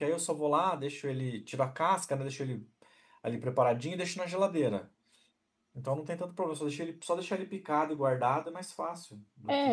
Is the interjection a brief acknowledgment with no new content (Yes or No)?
No